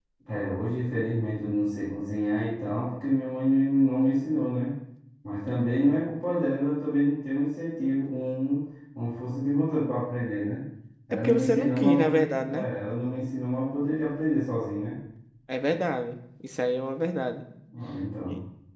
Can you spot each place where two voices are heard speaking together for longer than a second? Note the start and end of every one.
11.1-12.7

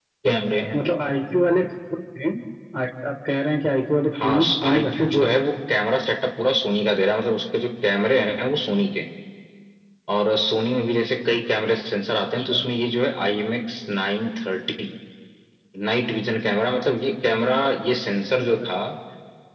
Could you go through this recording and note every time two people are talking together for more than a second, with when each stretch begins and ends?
4.1-5.4

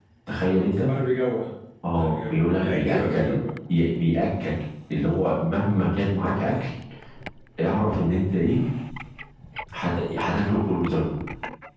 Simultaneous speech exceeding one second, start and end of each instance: 2.0-3.4

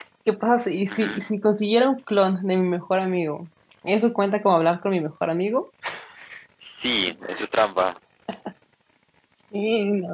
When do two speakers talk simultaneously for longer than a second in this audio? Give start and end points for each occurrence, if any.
none

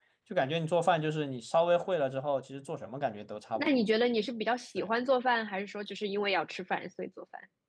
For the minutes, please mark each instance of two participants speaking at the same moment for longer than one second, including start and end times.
none

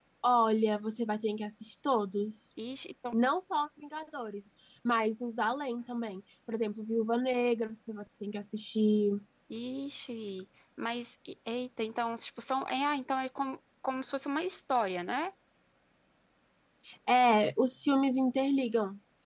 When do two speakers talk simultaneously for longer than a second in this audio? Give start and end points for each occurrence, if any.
none

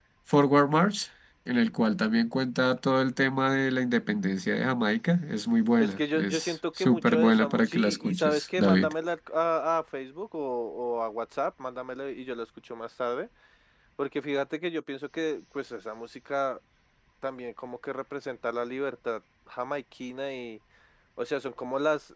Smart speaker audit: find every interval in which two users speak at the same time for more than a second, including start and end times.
5.8-8.9

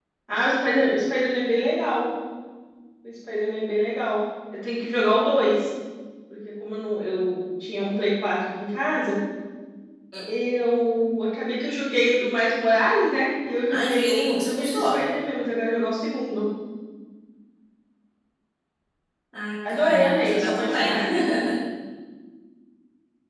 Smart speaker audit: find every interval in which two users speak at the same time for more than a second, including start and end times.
13.7-15.0, 19.7-21.0

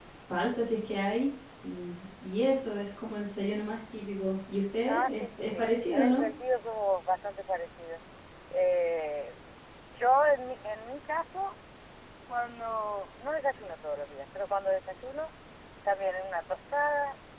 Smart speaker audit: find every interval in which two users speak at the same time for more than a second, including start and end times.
4.8-6.2

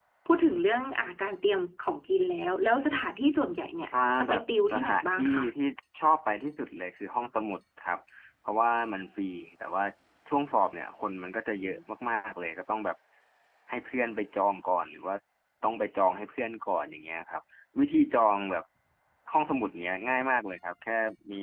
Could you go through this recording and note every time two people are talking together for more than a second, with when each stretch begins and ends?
4.2-5.4

